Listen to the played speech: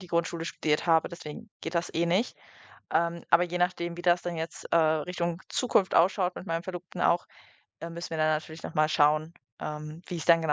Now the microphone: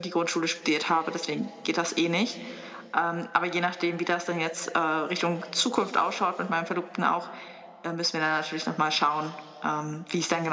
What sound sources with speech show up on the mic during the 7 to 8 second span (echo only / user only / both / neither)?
echo only